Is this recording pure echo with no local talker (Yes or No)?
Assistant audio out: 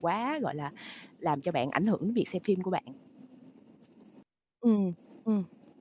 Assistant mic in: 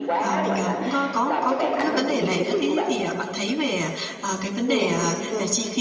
No